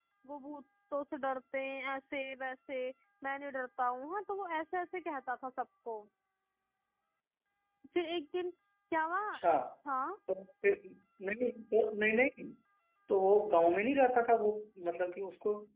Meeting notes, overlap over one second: none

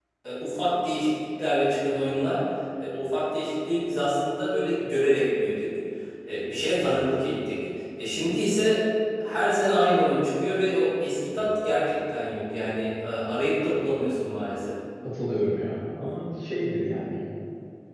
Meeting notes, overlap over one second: none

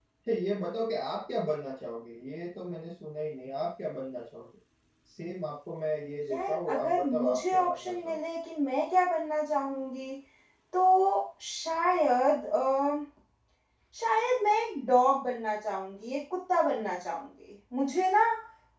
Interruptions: present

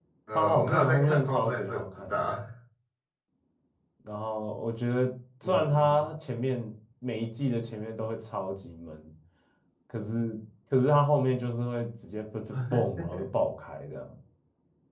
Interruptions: present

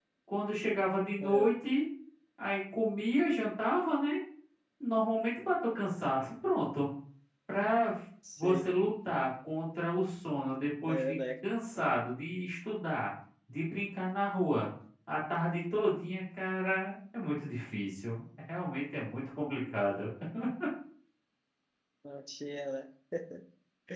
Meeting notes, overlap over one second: none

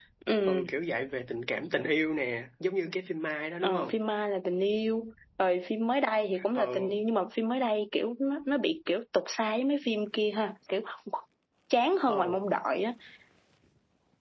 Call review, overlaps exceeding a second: none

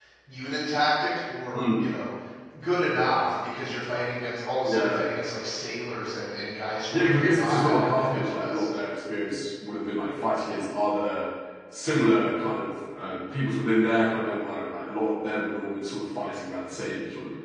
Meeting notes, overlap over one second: present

